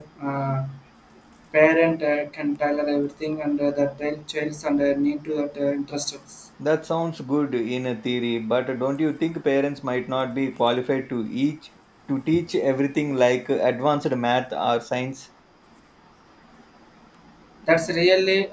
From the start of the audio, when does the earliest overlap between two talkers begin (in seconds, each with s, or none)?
none